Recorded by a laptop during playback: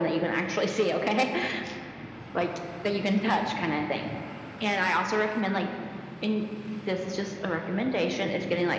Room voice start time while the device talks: none

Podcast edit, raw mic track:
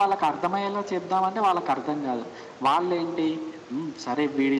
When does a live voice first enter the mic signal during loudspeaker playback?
none

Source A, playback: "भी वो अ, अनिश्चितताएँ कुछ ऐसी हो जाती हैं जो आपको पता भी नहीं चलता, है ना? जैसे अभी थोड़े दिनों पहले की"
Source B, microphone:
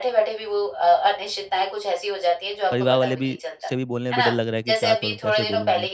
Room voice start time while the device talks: 2.7 s

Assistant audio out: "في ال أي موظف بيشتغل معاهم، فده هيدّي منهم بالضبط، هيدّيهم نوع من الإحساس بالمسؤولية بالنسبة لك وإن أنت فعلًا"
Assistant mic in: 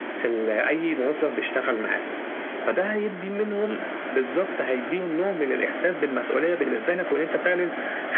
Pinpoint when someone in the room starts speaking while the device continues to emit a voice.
none

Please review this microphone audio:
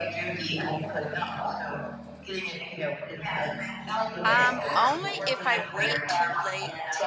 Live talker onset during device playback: 4.2 s

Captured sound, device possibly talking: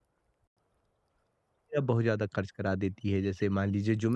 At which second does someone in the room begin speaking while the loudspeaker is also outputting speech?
1.8 s

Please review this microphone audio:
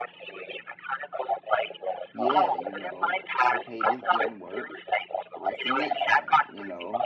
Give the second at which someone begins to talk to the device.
2.1 s

